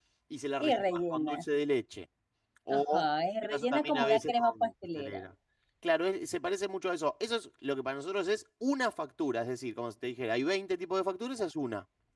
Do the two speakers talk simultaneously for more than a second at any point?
Yes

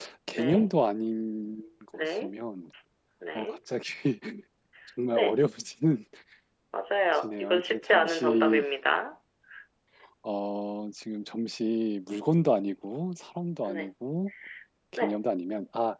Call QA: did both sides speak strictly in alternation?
No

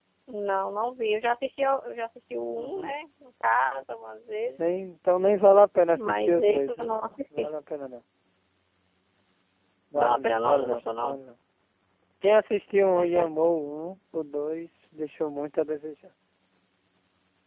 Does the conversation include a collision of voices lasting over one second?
Yes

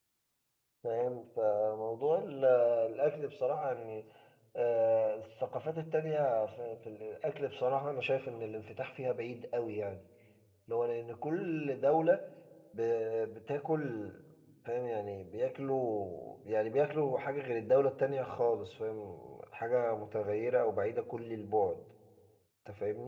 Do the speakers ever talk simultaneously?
No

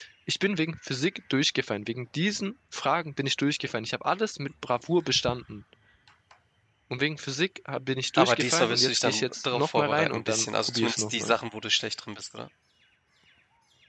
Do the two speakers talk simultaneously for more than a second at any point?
Yes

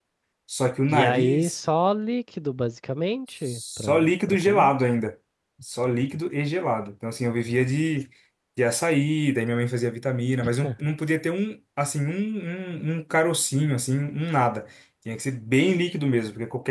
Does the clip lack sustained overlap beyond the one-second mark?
No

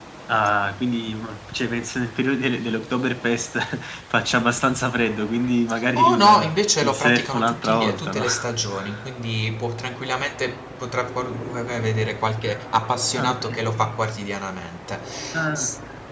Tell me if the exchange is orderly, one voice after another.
No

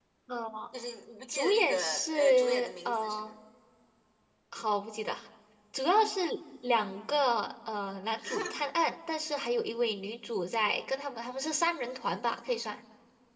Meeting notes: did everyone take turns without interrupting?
No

